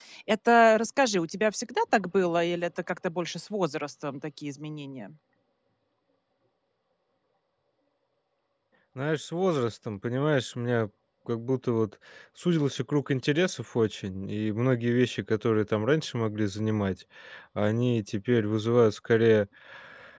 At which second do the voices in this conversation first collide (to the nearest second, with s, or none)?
none